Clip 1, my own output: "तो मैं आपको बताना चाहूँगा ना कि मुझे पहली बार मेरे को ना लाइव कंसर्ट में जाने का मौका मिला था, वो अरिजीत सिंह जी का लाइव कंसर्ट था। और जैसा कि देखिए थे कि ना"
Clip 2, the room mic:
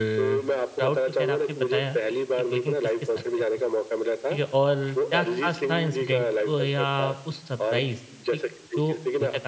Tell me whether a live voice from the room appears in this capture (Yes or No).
Yes